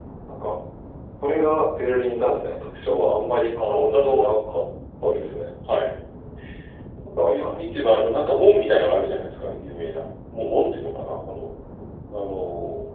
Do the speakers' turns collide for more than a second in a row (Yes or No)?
Yes